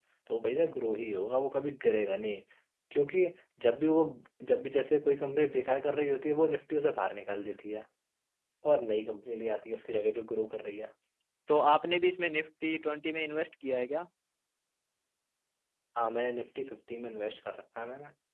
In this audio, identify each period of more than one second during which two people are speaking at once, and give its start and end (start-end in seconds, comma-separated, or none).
none